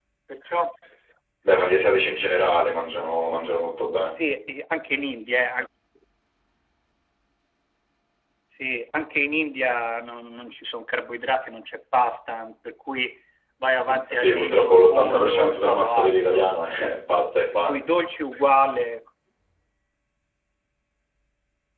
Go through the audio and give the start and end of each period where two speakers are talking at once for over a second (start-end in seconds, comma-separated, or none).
14.1-16.5